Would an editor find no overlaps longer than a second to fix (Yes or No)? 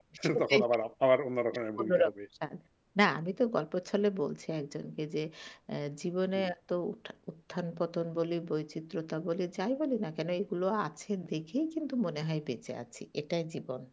Yes